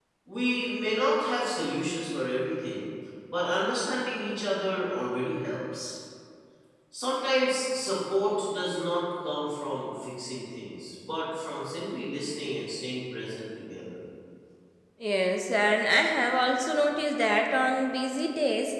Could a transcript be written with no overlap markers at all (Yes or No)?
Yes